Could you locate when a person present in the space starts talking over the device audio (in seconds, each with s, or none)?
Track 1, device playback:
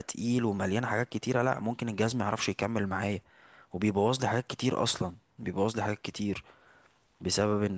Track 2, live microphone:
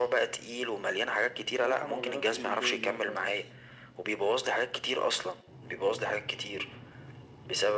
1.6 s